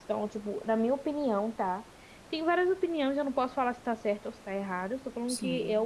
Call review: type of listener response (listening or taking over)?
listening